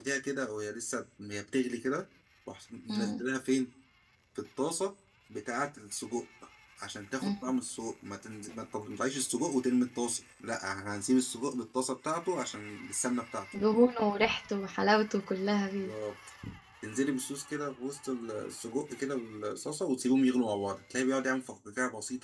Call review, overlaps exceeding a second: none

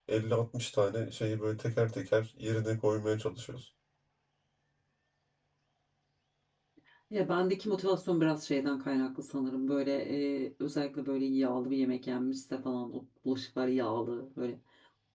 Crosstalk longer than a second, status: none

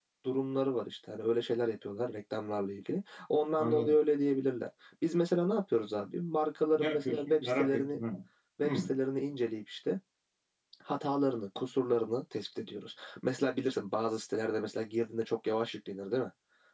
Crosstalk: present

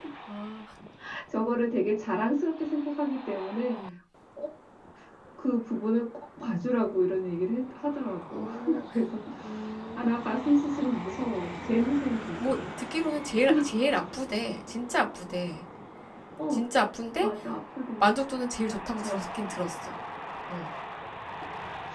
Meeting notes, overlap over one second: none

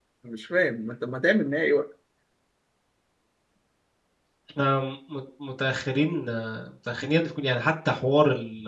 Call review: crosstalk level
none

